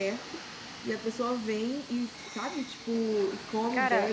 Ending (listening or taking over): listening